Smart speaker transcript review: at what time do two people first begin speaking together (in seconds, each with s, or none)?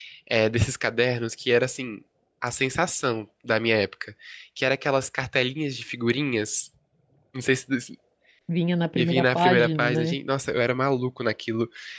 9.0 s